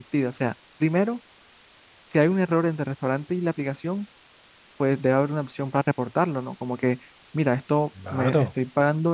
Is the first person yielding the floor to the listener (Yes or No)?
No